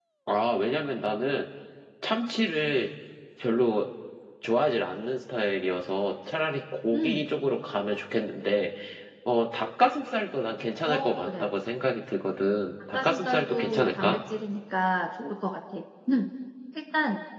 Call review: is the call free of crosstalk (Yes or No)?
No